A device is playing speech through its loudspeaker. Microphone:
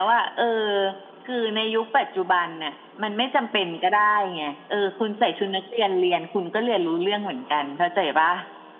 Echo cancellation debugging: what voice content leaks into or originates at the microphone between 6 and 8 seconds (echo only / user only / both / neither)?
echo only